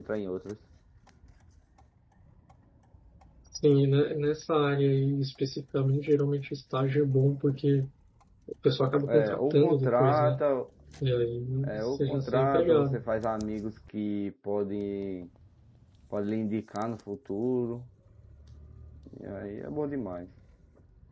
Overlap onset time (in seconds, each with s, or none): 9.1 s